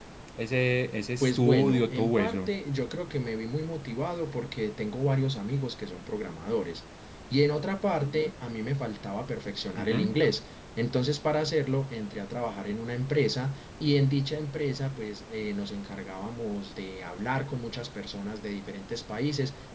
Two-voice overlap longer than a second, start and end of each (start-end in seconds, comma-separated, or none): 1.2-2.5